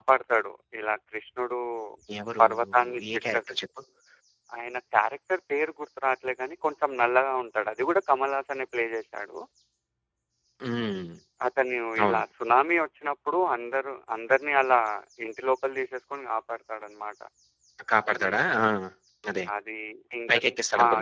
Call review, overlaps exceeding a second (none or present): none